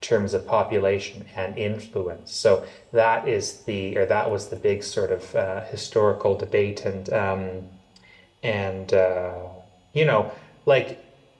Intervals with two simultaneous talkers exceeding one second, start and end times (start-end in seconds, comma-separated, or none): none